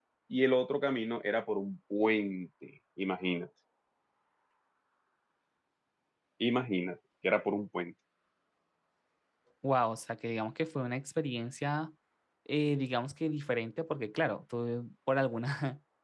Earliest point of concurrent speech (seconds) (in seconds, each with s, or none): none